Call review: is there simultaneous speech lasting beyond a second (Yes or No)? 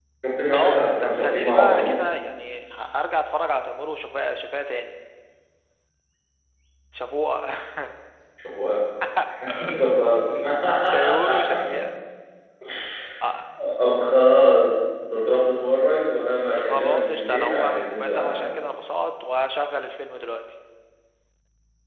Yes